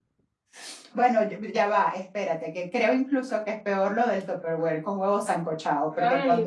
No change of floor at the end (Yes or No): Yes